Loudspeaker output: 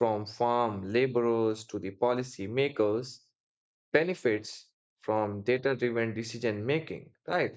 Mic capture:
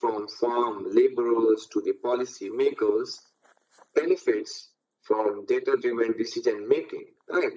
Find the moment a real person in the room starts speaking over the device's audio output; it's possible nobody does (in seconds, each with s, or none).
none